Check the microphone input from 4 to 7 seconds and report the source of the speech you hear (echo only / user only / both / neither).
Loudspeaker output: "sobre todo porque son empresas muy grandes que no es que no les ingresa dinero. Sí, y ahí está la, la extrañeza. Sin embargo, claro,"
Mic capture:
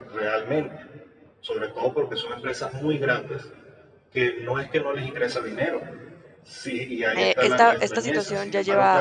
echo only